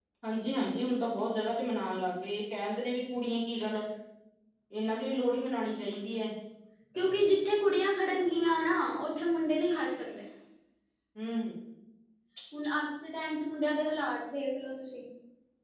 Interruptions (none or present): none